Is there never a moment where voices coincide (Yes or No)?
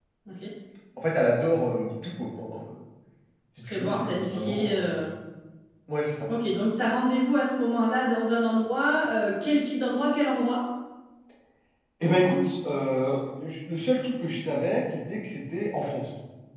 No